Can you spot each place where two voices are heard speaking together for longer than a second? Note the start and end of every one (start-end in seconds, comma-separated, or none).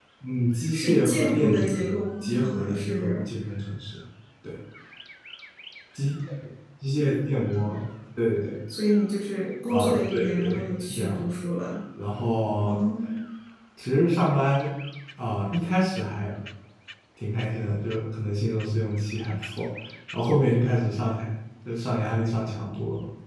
0.7-3.1, 9.7-11.3